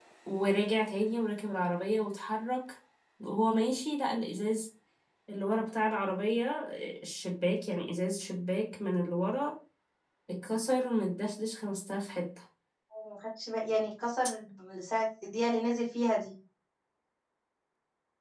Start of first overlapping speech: none

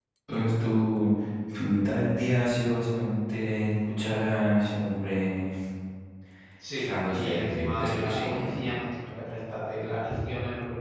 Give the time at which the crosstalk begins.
6.8 s

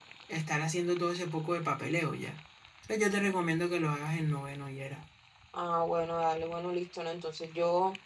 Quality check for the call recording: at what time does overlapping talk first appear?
none

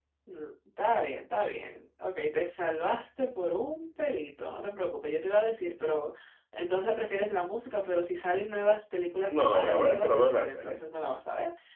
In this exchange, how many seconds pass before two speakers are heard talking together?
9.3 s

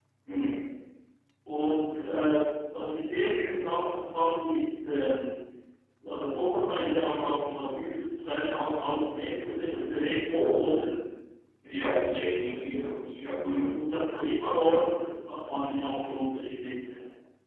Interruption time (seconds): none

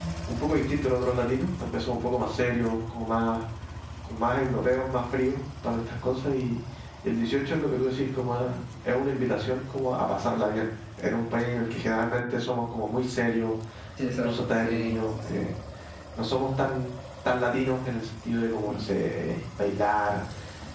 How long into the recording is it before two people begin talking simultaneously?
14.2 s

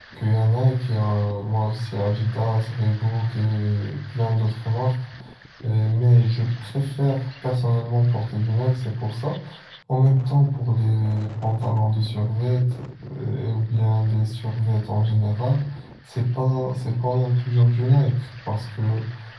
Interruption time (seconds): none

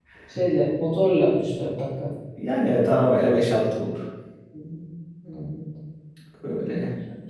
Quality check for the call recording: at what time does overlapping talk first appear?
none

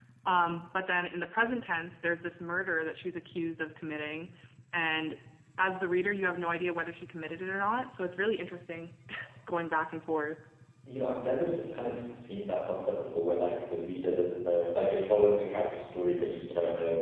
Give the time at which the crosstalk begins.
none

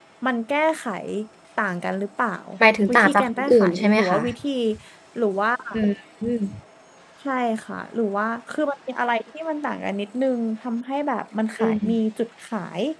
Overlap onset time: 2.9 s

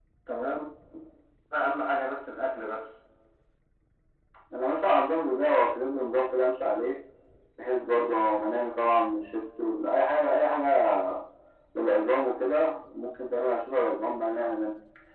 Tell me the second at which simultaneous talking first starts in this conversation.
none

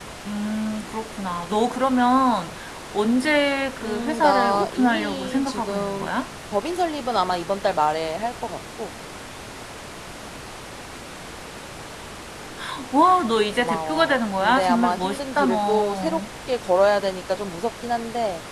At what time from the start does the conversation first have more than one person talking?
3.8 s

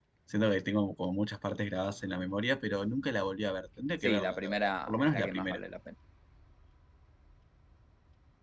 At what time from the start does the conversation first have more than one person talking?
4.0 s

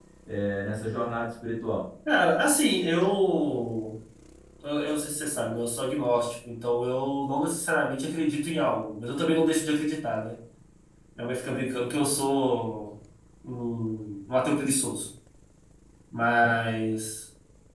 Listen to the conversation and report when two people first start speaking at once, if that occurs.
none

